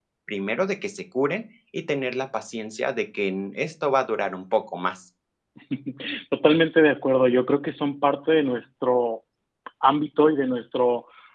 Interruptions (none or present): none